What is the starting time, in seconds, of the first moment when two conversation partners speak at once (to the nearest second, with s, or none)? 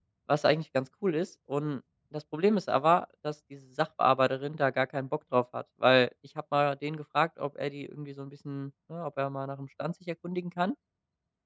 none